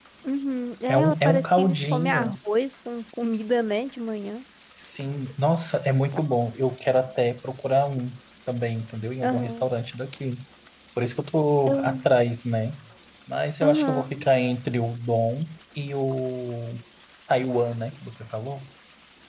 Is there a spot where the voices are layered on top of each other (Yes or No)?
Yes